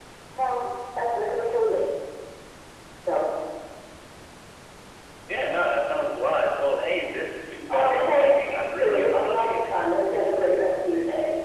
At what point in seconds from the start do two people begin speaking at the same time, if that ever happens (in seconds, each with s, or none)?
7.7 s